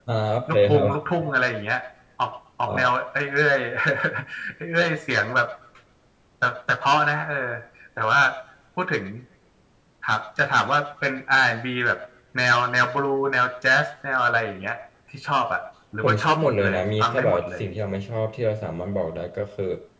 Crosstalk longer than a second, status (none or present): present